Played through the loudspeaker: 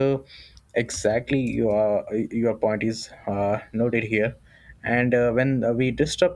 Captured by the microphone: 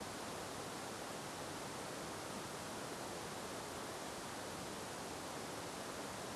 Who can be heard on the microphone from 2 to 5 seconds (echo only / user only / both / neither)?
neither